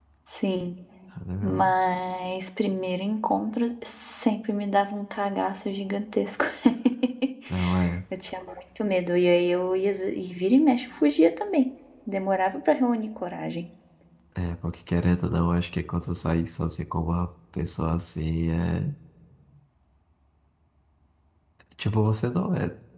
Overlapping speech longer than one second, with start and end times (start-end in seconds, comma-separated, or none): none